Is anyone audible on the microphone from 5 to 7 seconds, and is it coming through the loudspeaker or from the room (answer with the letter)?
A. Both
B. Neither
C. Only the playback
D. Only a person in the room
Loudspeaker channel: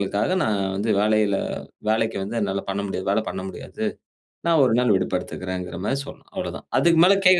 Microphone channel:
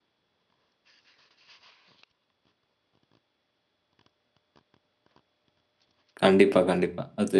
D